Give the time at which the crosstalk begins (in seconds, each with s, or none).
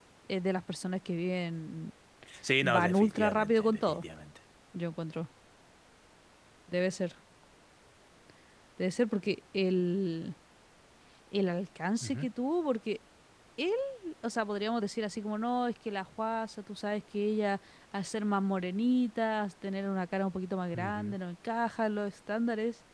2.6 s